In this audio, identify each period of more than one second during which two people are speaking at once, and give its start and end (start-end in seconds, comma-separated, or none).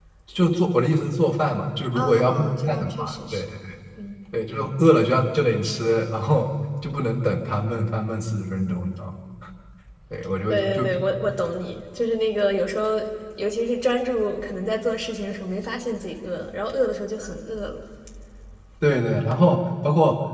2.0-3.4